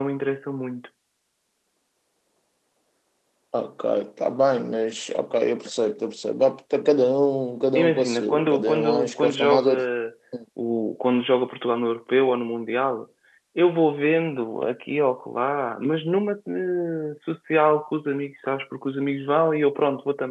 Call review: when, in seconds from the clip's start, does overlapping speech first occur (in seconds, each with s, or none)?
7.8 s